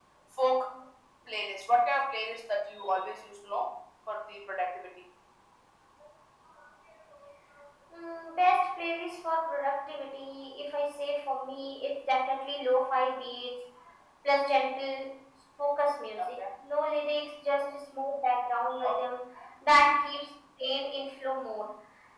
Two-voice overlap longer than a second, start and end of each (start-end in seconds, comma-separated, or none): none